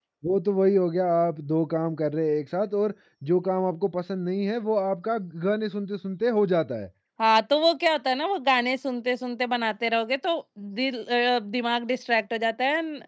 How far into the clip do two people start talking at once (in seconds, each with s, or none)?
none